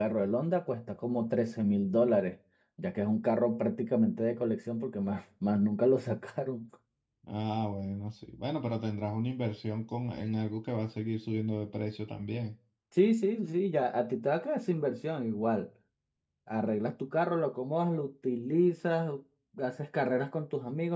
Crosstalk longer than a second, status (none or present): none